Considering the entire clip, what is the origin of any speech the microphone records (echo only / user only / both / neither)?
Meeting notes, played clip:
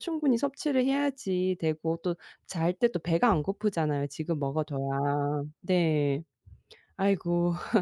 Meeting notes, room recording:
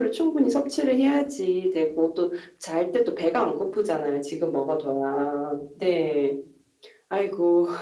echo only